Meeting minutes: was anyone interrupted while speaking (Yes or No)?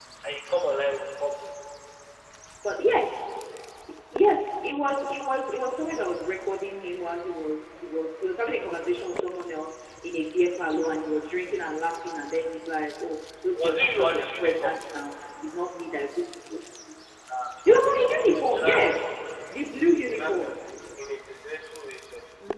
Yes